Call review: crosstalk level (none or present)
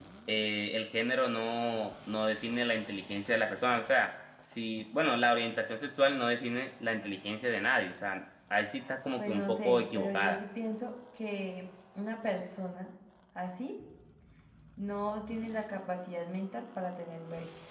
present